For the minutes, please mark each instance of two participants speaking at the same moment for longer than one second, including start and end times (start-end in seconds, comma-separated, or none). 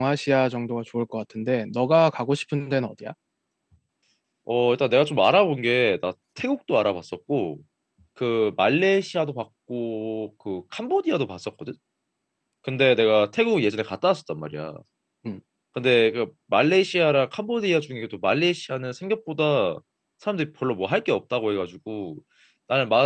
none